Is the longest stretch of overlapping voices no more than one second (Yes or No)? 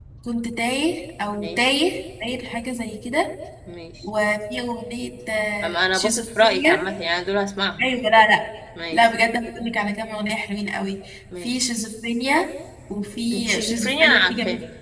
No